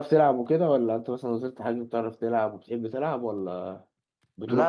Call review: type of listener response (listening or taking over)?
taking over